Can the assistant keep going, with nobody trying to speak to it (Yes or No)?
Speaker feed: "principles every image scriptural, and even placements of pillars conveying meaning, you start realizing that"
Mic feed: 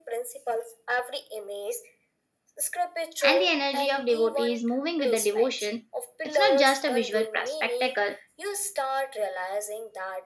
No